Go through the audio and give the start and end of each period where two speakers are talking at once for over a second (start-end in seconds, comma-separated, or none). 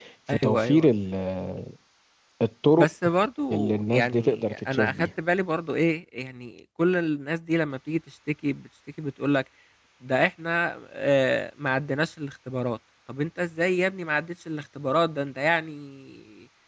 3.5-4.9